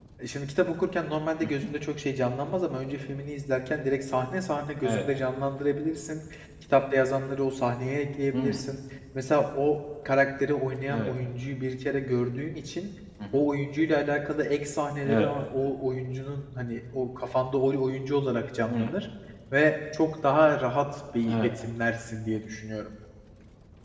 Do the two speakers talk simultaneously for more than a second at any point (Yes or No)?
No